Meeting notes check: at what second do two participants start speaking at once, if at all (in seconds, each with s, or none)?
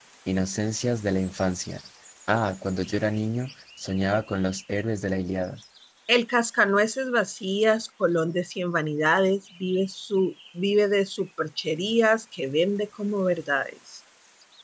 none